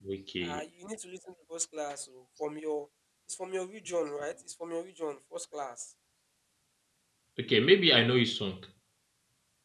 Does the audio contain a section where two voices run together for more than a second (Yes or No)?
No